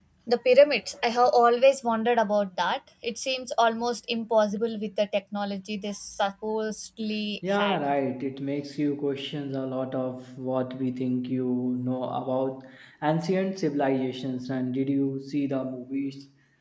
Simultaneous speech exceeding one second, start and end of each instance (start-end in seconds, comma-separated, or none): none